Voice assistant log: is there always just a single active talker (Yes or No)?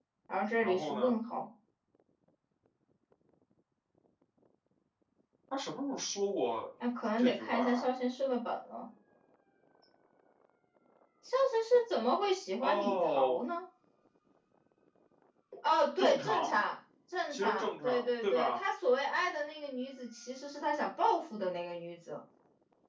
No